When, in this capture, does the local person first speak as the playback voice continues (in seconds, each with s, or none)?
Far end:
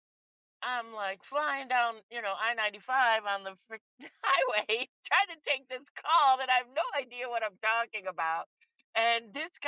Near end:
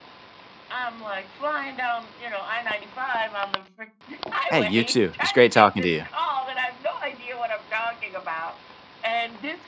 4.5 s